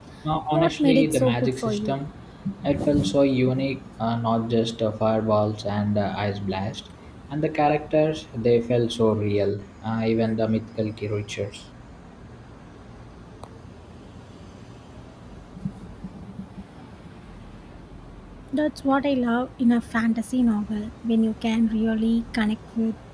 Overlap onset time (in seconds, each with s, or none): 0.5 s